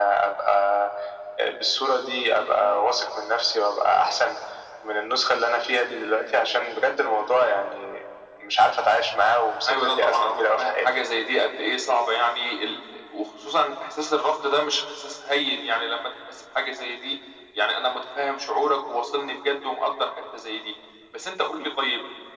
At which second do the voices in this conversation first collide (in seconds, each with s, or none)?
9.7 s